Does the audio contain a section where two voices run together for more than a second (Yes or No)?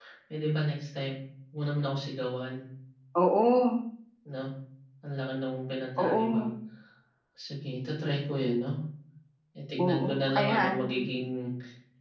Yes